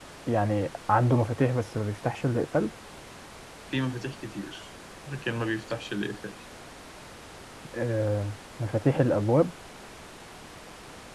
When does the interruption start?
none

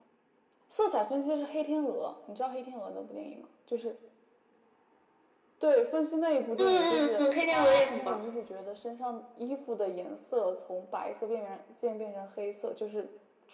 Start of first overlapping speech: 6.6 s

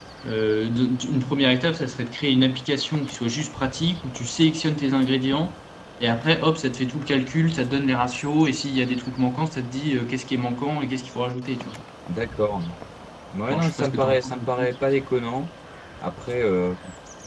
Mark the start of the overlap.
13.5 s

